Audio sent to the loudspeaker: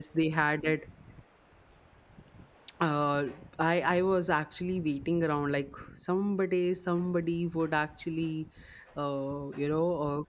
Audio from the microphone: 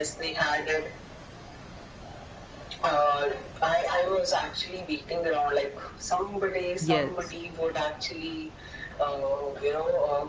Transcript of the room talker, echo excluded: yes

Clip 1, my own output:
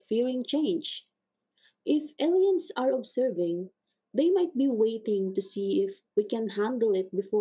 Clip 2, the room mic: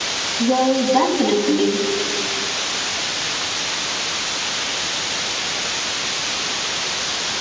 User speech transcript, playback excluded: Well, definitely.

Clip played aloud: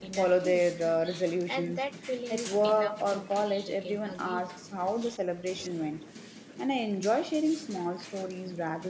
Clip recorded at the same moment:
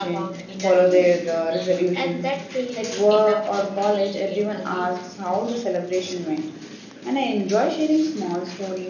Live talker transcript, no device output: none

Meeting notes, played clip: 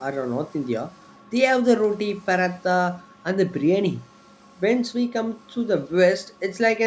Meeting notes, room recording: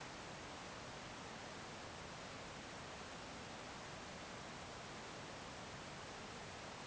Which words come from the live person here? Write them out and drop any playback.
none

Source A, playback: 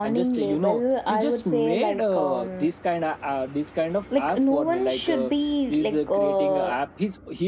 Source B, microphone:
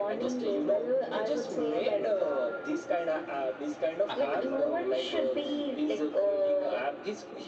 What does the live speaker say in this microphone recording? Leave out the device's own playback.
I have a lot of.

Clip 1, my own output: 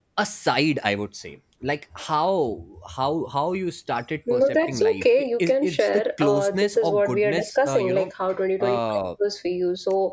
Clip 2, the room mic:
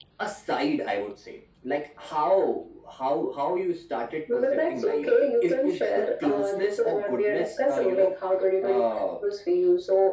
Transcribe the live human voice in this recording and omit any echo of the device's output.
none

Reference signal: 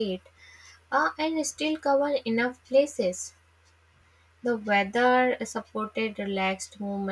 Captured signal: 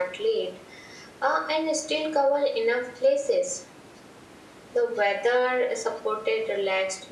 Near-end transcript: none

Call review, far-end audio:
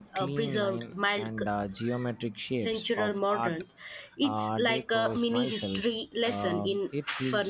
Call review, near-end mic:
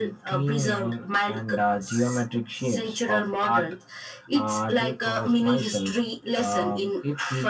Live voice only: none

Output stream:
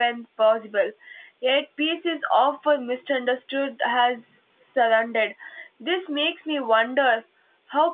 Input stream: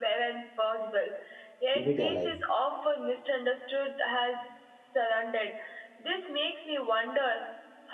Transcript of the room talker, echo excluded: keep it alive.

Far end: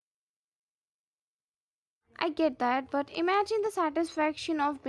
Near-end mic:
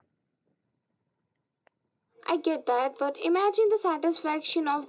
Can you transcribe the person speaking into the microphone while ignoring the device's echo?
none

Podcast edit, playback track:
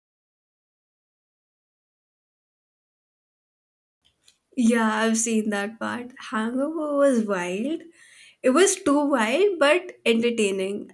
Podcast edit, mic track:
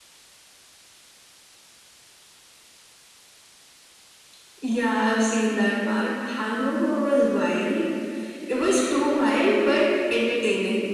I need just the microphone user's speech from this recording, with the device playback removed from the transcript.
none

